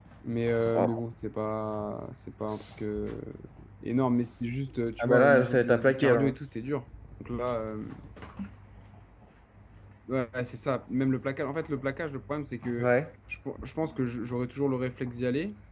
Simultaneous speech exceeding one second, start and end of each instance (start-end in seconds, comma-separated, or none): 5.0-6.3